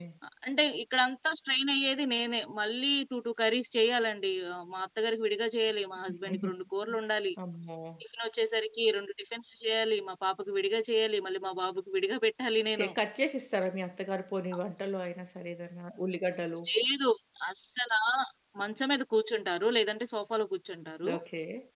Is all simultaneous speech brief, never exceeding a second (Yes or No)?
Yes